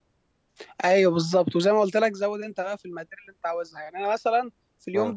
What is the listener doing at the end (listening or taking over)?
listening